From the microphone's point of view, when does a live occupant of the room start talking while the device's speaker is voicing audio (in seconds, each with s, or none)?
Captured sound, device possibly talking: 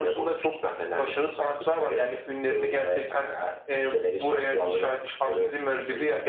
none